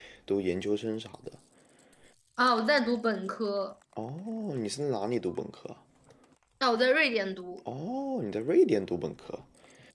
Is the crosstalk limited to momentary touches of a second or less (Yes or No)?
Yes